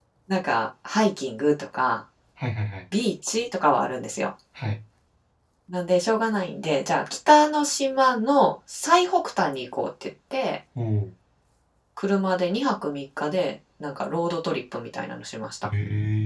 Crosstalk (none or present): none